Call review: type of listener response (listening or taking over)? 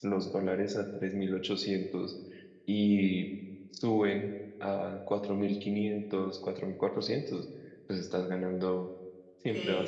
taking over